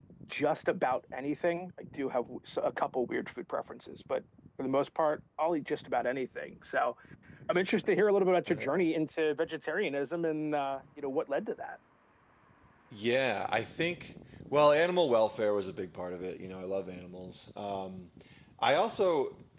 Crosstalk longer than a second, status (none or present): none